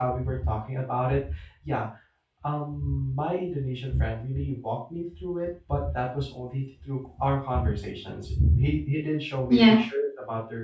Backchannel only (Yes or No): Yes